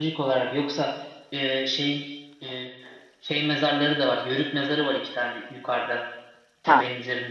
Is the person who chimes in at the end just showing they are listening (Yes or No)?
Yes